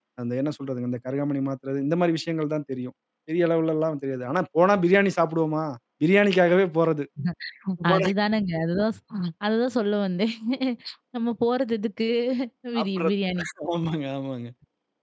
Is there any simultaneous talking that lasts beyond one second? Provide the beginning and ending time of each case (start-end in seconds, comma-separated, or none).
none